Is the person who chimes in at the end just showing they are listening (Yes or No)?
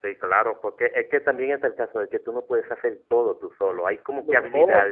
Yes